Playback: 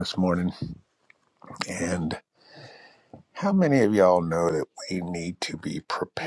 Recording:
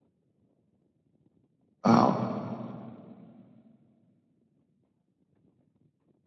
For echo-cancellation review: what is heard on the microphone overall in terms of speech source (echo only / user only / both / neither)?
user only